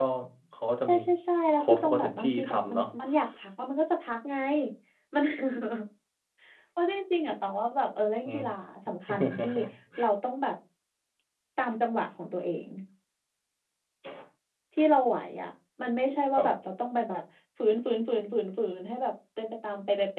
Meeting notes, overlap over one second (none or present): present